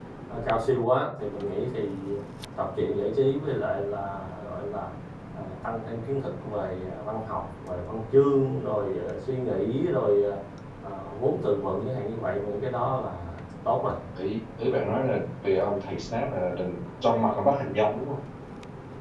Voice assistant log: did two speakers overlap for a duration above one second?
No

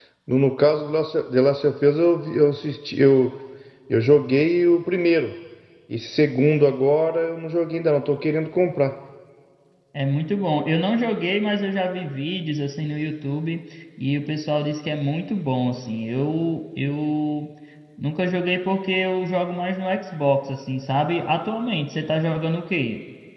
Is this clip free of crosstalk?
Yes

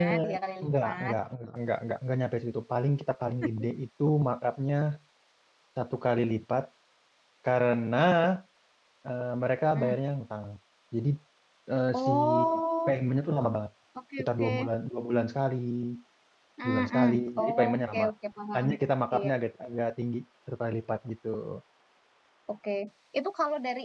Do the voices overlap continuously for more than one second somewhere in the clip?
Yes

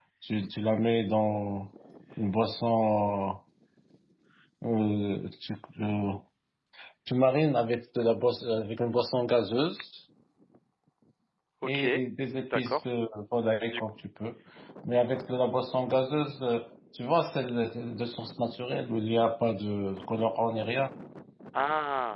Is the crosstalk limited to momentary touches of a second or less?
Yes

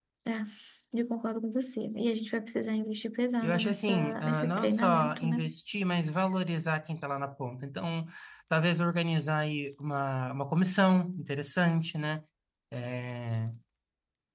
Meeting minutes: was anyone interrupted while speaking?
Yes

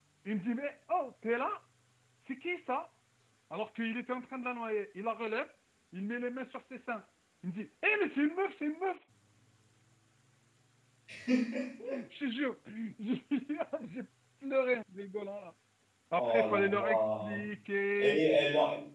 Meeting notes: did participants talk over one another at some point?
Yes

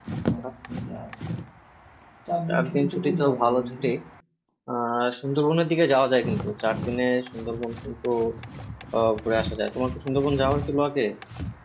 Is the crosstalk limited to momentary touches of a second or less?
No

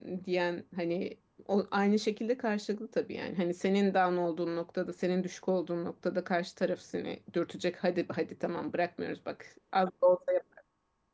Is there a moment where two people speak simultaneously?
No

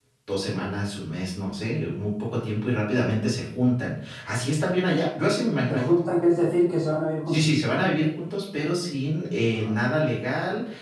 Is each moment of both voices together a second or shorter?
Yes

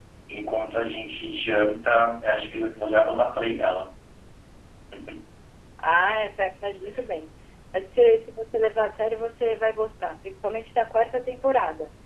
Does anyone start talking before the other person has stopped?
No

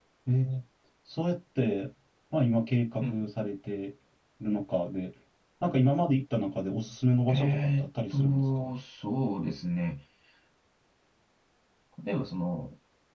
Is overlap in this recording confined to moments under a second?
No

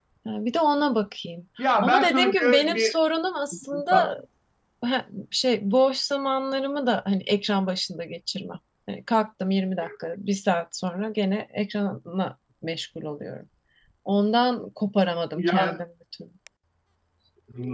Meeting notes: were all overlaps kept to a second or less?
No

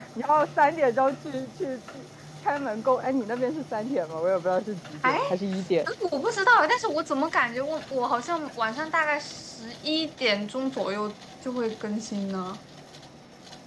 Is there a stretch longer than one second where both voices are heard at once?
No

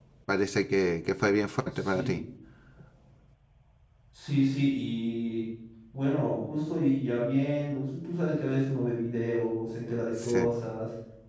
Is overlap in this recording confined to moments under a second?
Yes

